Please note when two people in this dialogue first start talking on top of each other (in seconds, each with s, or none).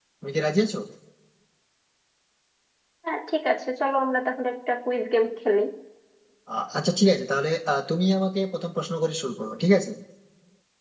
none